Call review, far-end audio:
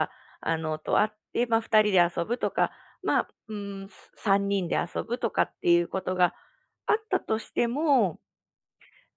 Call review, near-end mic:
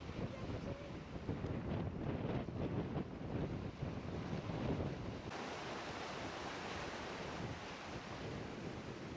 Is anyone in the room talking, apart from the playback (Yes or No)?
No